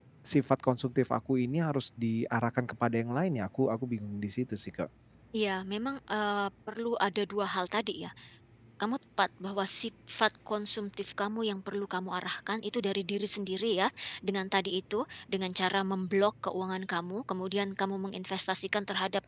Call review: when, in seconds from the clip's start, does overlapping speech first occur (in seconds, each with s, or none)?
none